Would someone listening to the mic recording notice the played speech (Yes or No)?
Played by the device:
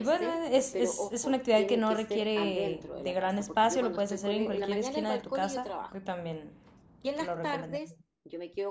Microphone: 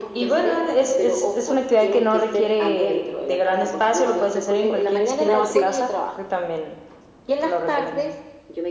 Yes